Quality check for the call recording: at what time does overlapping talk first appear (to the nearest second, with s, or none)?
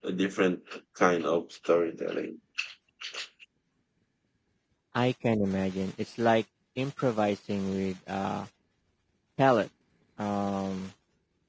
none